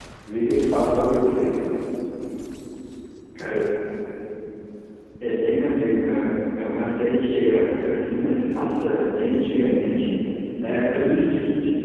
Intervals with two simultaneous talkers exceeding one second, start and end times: none

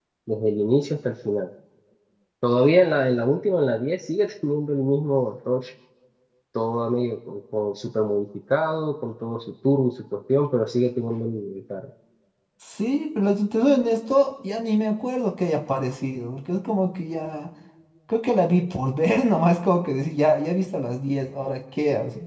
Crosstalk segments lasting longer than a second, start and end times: none

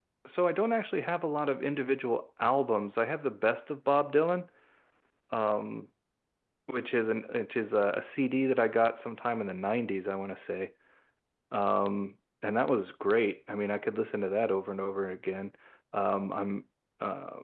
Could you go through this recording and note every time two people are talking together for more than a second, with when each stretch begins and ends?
none

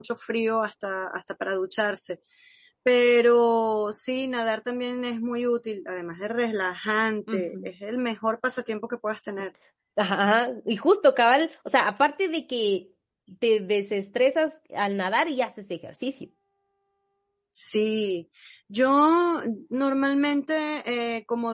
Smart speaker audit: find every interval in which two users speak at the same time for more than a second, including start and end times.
none

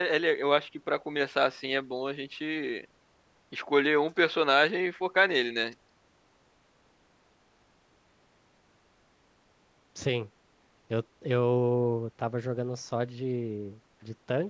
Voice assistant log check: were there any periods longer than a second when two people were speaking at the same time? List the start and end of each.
none

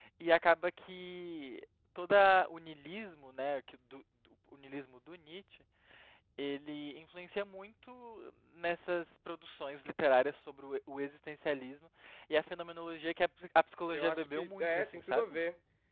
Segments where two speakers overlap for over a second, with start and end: 13.9-15.4

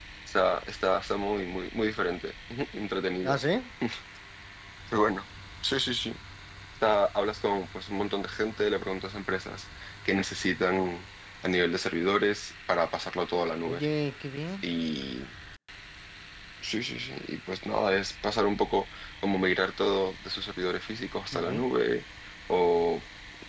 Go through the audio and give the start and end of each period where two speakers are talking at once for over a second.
none

